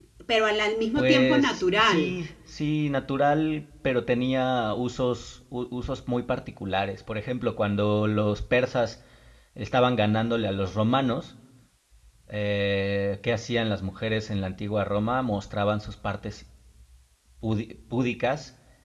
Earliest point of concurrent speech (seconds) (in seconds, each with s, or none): 1.0 s